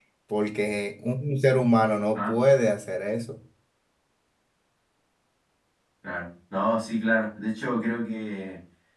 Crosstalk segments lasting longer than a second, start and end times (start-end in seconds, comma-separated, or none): none